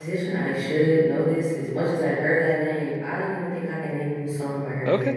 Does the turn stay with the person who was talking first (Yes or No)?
No